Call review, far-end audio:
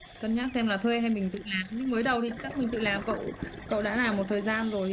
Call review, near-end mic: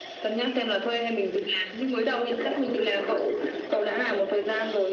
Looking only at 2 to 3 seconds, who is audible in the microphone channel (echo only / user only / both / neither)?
echo only